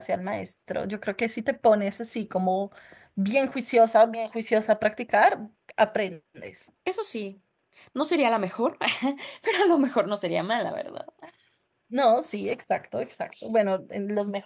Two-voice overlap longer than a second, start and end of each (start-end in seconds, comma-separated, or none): none